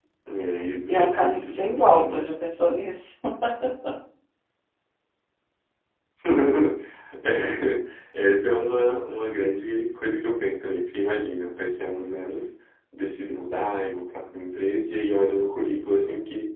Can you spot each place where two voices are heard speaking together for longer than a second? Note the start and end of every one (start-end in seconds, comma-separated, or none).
0.9-2.2